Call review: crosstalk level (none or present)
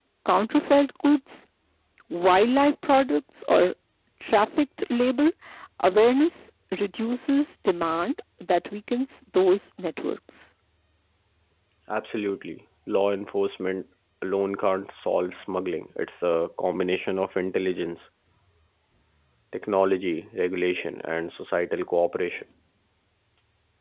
none